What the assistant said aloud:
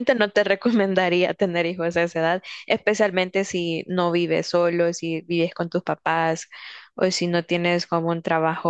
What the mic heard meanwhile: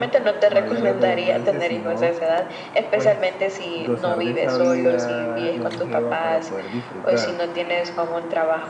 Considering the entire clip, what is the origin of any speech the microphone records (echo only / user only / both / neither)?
both